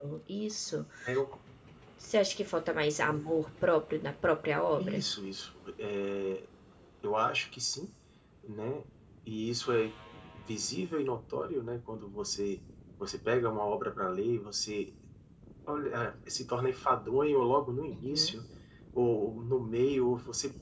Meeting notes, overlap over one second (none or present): none